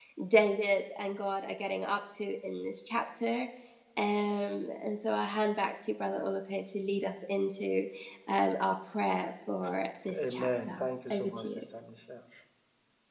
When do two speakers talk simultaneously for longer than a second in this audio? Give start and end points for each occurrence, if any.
10.1-11.6

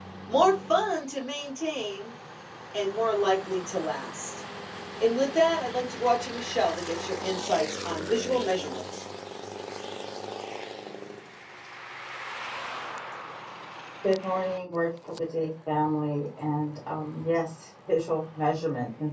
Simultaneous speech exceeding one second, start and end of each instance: none

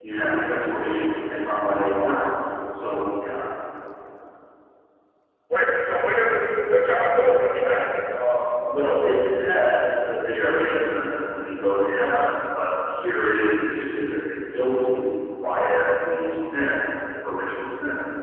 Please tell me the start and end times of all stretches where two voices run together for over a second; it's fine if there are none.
none

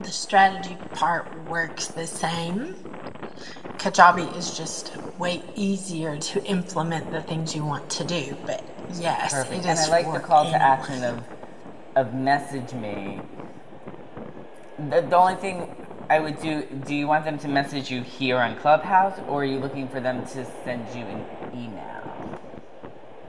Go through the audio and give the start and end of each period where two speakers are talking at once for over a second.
9.2-11.1

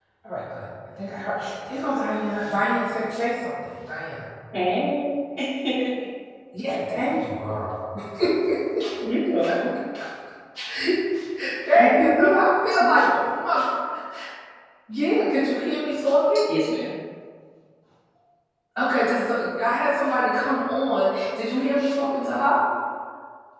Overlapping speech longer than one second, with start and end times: 11.8-13.1

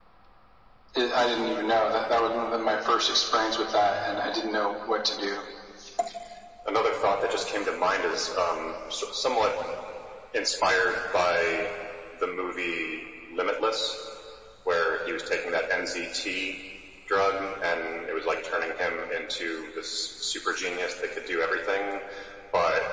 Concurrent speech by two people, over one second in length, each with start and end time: none

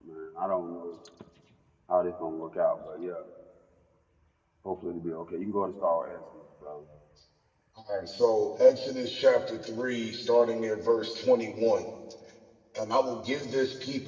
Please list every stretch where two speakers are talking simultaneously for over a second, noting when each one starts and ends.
none

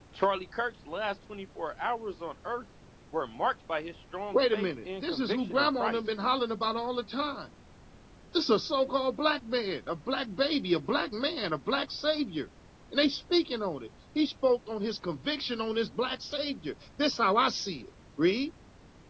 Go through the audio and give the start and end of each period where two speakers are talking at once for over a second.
4.3-6.0

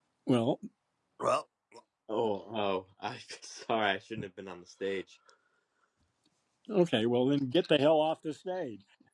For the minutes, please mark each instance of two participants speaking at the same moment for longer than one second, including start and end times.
none

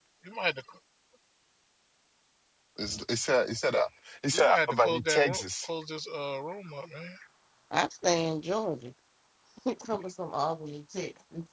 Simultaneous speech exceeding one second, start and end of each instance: 4.3-5.7

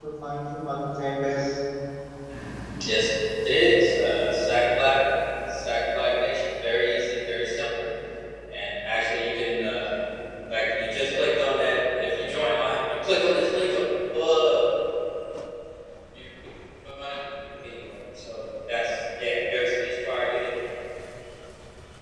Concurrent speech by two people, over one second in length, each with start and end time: none

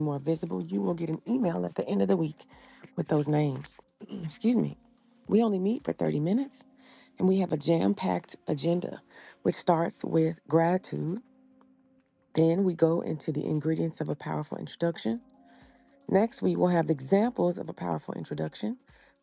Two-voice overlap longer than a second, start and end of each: none

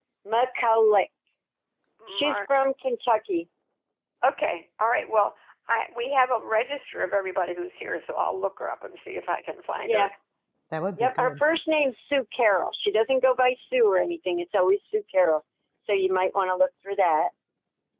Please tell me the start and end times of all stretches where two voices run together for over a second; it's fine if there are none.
none

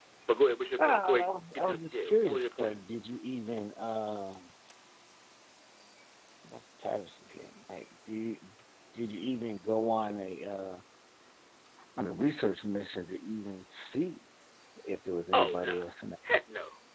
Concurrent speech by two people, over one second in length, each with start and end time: 0.8-2.7

